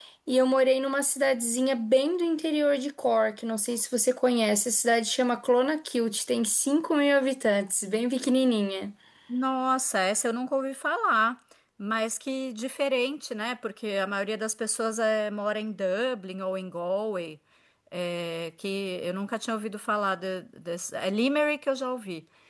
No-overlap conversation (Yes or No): Yes